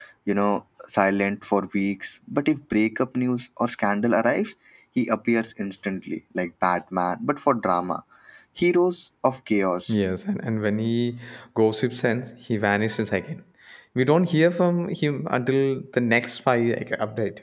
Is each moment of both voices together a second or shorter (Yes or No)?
Yes